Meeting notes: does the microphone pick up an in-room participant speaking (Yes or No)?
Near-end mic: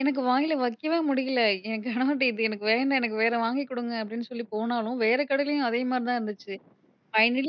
Yes